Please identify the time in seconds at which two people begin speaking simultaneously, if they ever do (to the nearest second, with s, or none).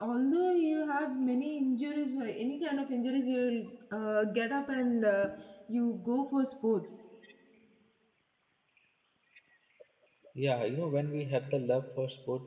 none